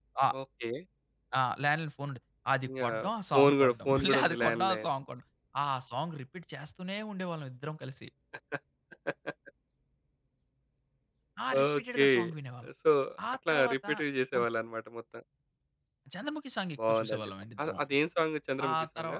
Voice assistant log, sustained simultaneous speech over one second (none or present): present